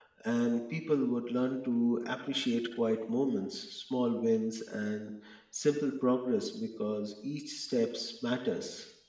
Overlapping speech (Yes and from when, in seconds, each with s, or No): No